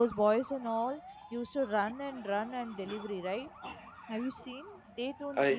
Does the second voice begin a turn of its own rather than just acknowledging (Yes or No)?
No